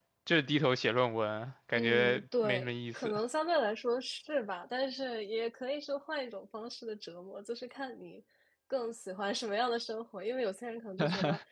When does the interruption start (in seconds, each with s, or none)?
1.8 s